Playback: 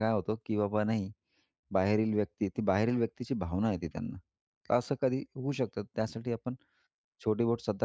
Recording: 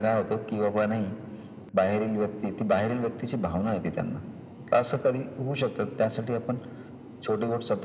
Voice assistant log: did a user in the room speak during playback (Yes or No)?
No